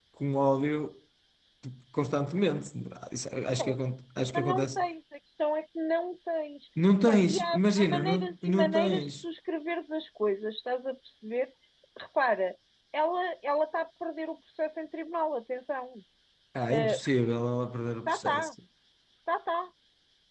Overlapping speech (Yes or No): Yes